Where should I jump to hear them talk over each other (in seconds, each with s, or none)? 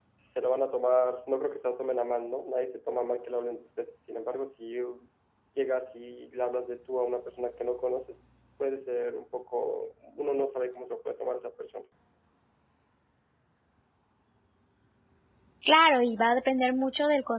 none